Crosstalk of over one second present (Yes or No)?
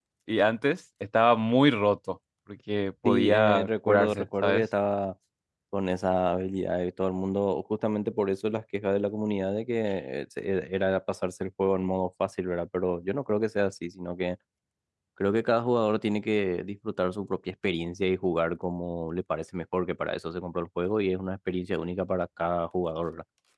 Yes